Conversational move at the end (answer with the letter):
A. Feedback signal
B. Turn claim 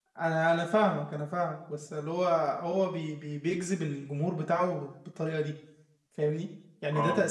A